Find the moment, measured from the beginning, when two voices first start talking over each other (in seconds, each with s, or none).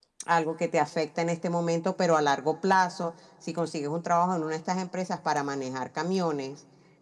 none